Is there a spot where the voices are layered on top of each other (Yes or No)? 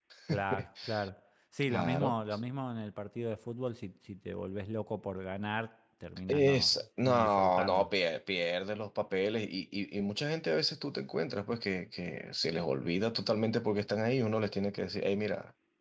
Yes